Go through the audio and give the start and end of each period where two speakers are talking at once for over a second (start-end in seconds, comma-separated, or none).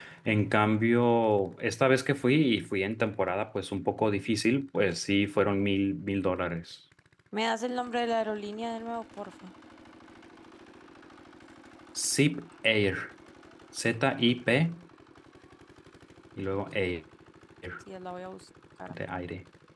none